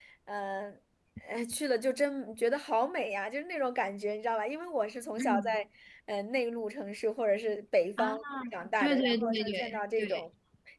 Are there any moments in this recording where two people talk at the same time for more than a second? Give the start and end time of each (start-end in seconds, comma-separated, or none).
8.8-10.2